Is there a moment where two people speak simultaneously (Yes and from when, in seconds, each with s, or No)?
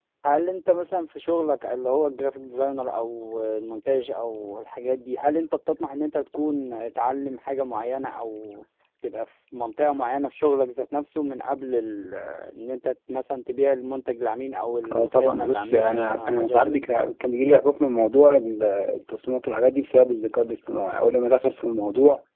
Yes, from 14.8 s